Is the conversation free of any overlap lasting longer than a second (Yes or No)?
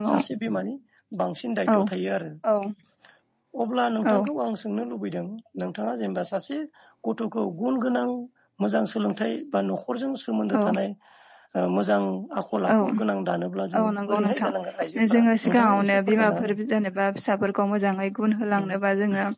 No